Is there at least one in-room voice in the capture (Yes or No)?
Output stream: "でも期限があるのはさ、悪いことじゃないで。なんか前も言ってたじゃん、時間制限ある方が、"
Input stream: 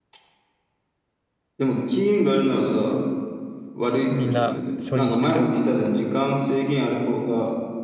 Yes